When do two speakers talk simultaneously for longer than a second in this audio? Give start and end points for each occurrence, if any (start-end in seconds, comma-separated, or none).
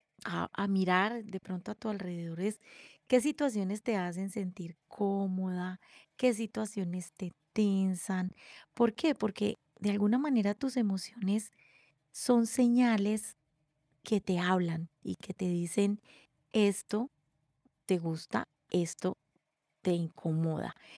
none